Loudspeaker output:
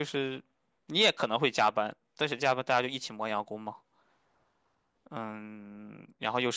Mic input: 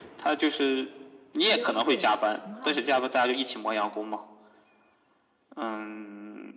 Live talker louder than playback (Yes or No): No